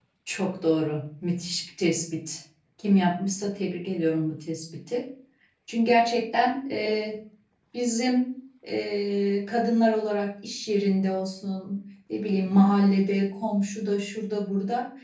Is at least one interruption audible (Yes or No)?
No